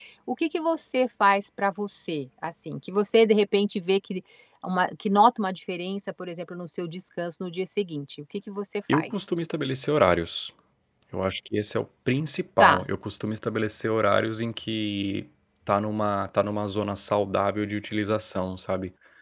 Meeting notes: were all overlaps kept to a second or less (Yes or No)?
Yes